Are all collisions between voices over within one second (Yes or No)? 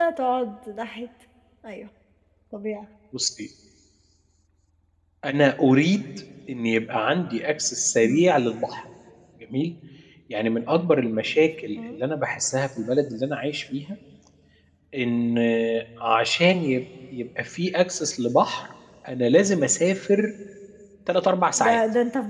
Yes